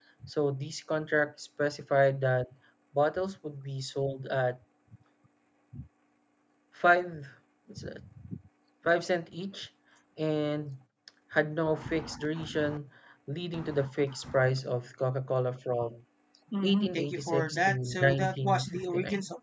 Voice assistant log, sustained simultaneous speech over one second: present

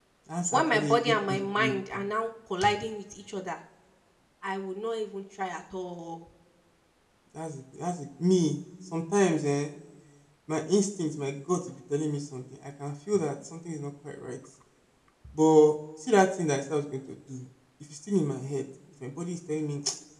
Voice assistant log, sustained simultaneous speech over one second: present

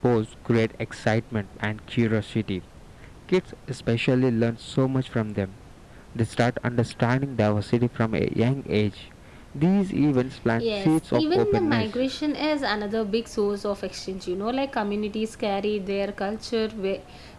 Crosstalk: present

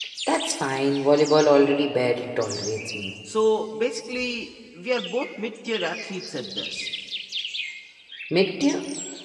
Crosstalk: none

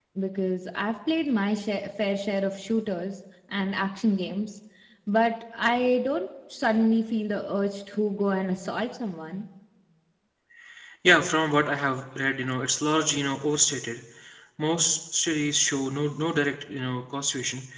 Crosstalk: none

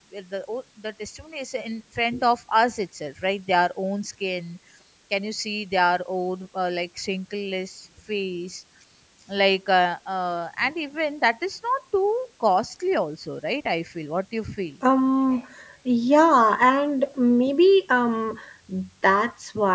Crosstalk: none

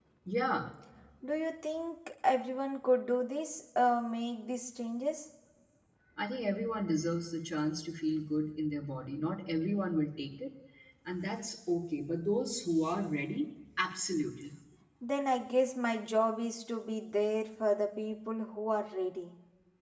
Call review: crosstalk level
none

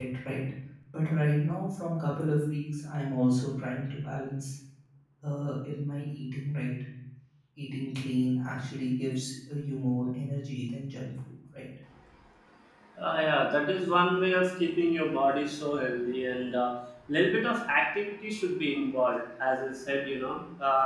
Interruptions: none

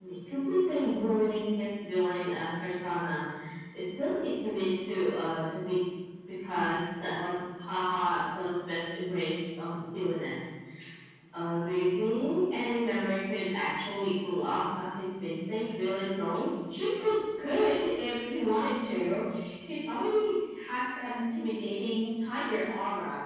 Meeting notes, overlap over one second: none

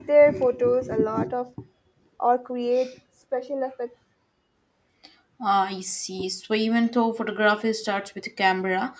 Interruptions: none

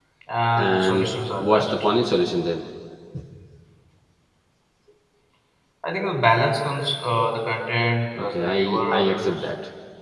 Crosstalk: present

